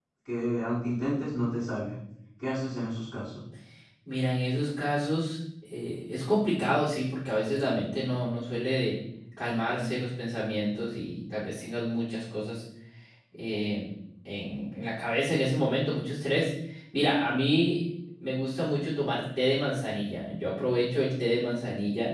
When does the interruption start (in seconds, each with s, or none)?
none